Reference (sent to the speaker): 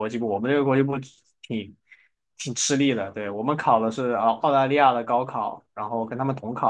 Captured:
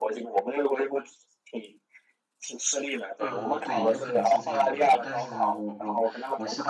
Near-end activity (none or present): present